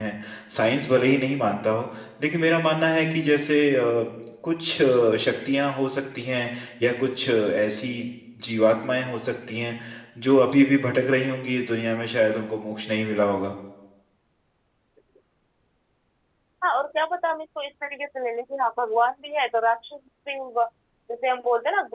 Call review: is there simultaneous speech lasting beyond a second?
No

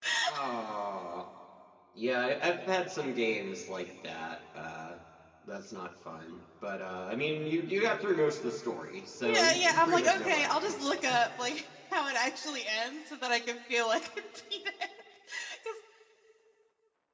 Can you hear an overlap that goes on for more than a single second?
Yes, from 9.2 s

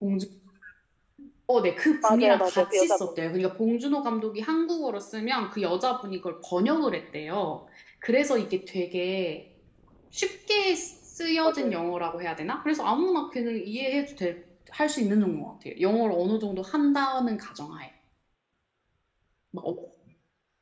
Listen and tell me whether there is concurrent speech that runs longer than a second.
Yes, from 2.0 s

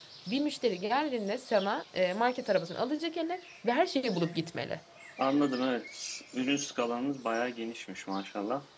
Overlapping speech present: No

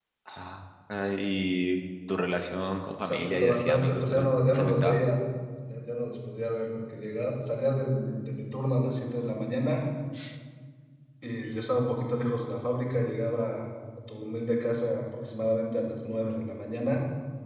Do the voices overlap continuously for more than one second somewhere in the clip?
Yes, from 3.0 s

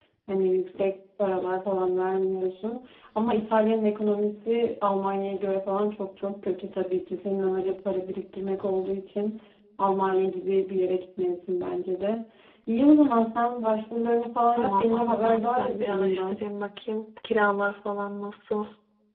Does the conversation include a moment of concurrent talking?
Yes, from 14.5 s

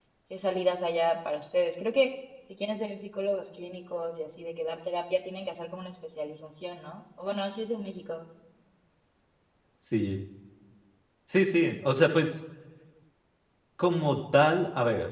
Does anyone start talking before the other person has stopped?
No

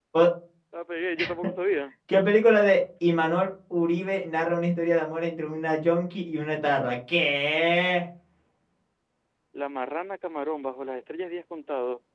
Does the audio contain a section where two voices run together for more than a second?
No

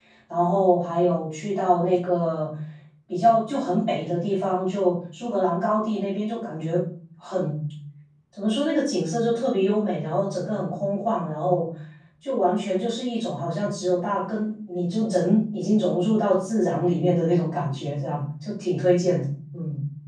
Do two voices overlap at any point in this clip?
No

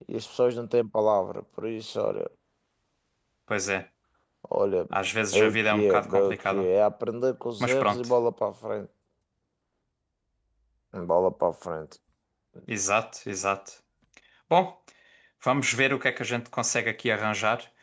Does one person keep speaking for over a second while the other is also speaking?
Yes, from 5.3 s

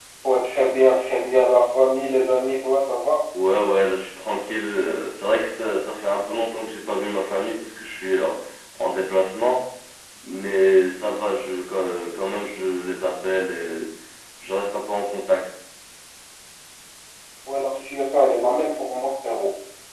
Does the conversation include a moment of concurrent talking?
No

